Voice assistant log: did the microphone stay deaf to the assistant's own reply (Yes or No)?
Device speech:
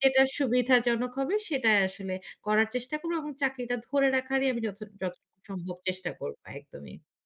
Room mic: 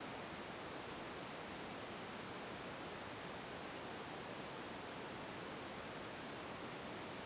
Yes